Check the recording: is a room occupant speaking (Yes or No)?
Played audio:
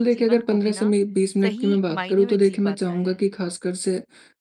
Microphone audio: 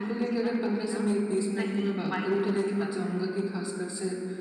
No